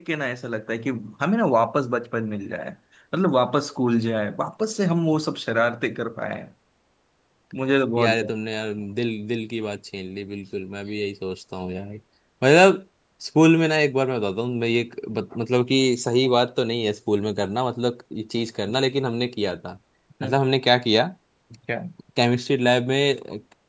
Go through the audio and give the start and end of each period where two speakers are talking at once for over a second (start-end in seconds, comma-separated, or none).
none